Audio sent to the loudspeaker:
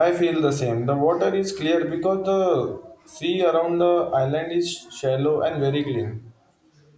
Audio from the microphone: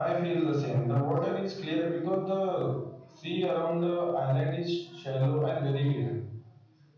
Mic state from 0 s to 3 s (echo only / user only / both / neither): echo only